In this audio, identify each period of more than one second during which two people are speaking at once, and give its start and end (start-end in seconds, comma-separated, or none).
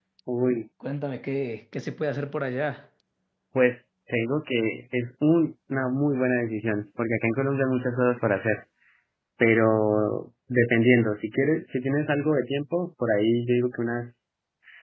none